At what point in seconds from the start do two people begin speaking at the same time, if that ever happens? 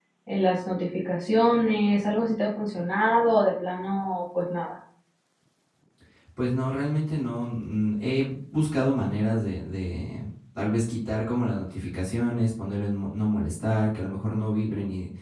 none

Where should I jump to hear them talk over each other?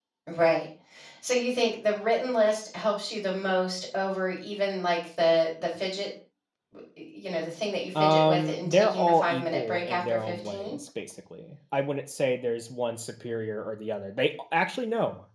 7.9 s

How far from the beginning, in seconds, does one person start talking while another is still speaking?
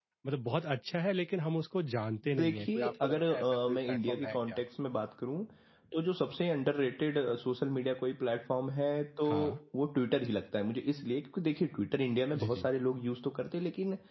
2.4 s

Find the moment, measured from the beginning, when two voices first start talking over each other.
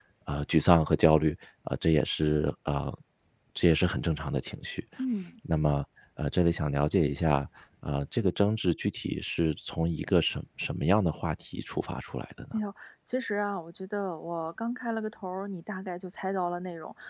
none

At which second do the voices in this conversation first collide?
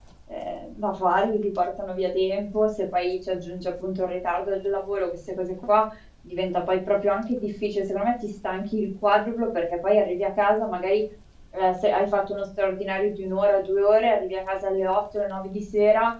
none

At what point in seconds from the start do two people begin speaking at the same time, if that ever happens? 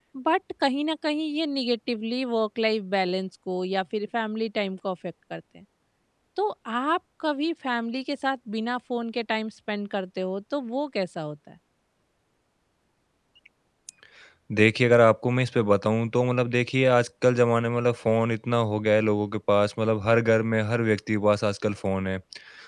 none

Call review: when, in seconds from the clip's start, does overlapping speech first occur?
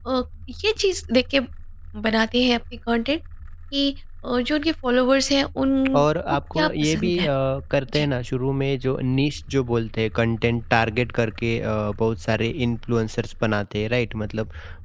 5.9 s

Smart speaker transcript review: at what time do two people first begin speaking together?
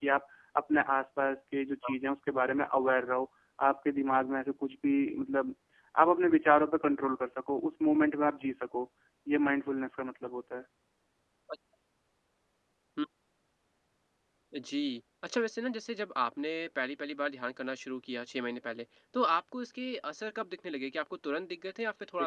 none

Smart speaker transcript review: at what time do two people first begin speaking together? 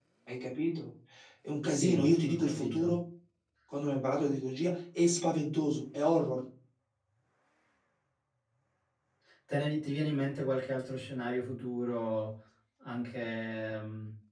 1.7 s

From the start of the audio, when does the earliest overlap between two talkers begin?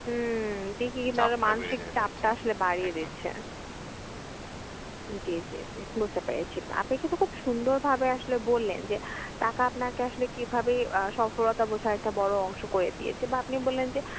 1.1 s

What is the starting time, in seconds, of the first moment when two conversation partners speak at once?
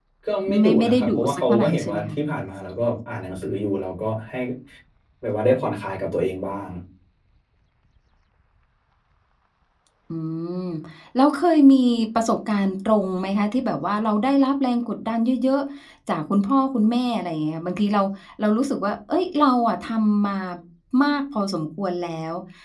0.6 s

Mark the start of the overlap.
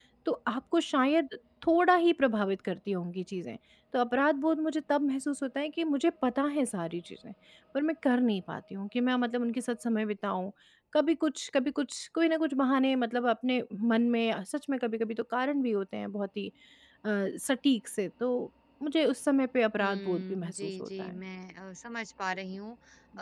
19.8 s

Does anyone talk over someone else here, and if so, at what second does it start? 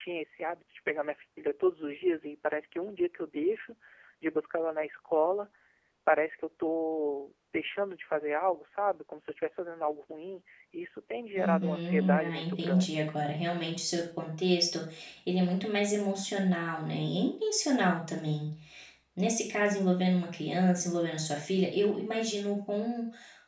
11.3 s

